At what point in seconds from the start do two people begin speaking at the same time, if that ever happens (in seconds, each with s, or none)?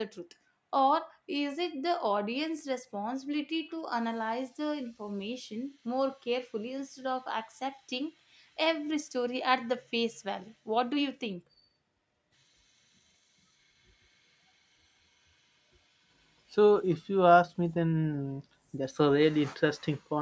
none